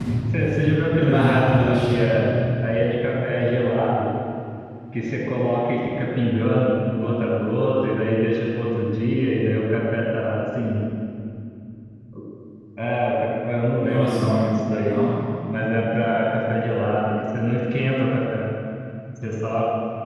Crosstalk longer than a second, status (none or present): present